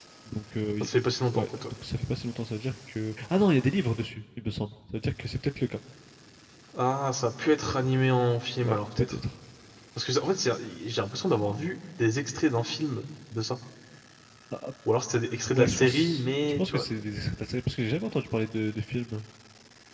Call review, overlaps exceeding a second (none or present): present